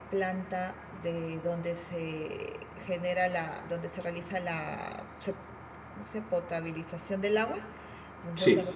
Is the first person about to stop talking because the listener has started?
No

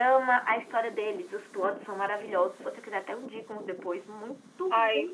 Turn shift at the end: No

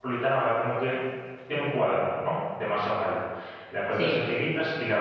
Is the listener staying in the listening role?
Yes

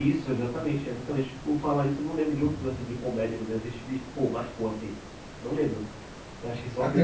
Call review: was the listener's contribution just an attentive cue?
No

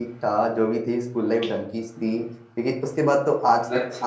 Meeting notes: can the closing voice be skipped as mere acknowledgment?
Yes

